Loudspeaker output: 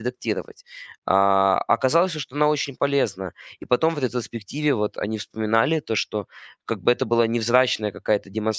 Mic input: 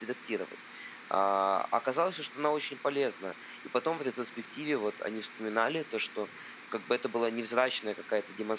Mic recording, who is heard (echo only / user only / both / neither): echo only